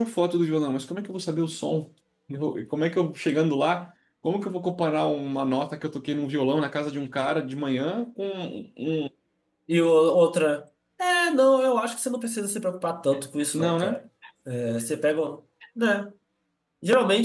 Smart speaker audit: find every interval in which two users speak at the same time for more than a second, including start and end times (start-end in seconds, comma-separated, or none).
none